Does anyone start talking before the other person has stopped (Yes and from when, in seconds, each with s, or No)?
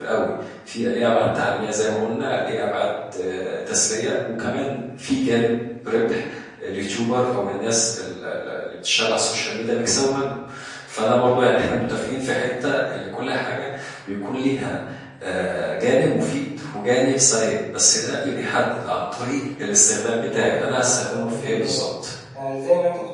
Yes, from 20.1 s